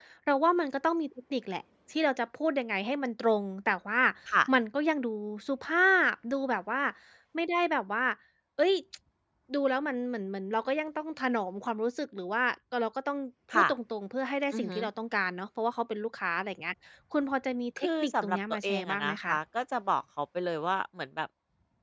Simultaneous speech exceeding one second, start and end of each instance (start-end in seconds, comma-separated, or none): 17.8-19.3